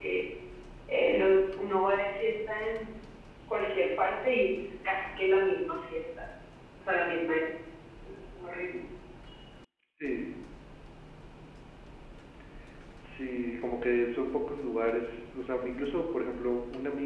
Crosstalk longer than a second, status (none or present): none